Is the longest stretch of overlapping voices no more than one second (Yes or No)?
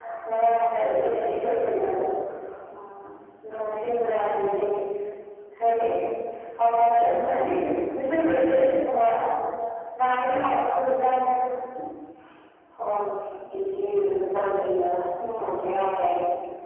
Yes